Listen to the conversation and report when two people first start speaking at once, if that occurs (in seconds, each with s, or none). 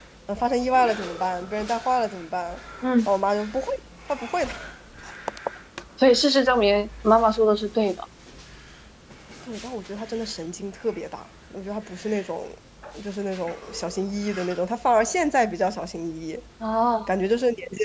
none